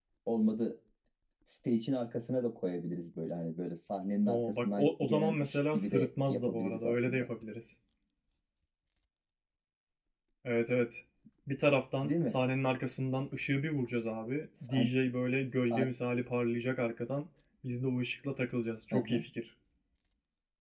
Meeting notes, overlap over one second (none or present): present